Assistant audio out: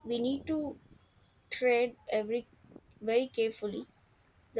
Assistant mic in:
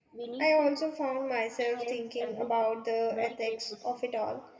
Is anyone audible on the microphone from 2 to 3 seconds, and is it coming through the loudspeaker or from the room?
both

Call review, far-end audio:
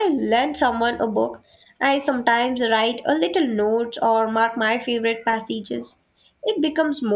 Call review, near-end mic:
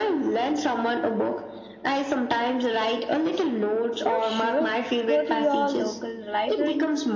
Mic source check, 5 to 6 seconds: both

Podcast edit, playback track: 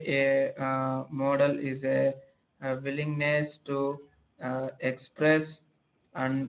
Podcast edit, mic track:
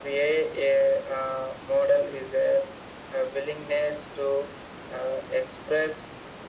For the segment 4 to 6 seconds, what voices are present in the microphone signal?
echo only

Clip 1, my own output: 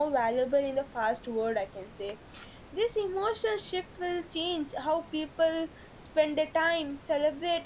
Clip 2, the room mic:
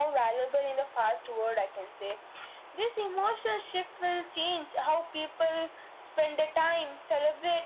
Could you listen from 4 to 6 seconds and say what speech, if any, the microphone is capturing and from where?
echo only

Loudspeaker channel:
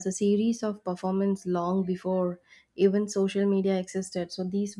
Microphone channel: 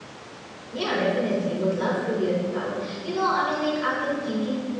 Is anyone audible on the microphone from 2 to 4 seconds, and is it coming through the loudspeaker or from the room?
user only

